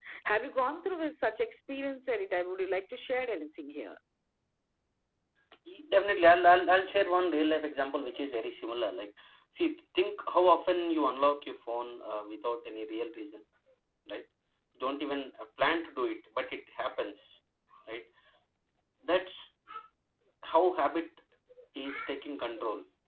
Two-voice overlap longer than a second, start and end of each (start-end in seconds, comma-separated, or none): none